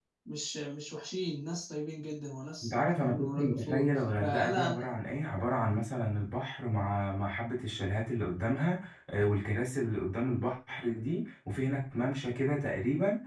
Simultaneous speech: Yes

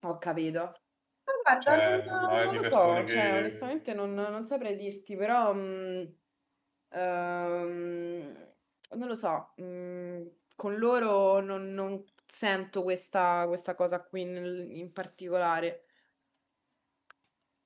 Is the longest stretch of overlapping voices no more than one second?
No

